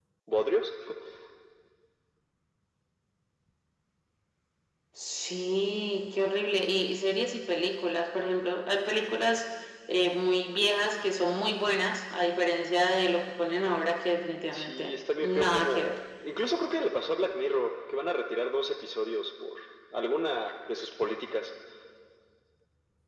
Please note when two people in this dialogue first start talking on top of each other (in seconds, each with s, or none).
14.5 s